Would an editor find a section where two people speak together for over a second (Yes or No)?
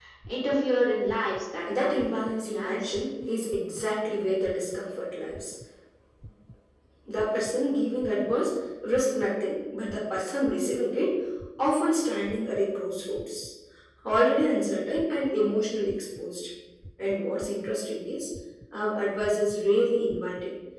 Yes